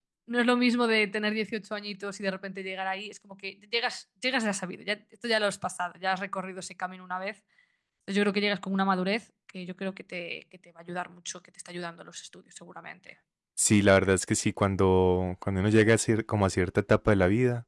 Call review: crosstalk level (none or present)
none